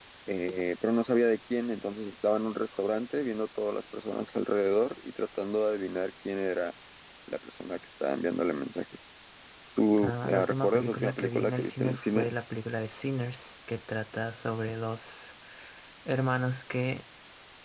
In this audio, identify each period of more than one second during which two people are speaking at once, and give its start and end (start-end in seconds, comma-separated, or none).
10.0-12.3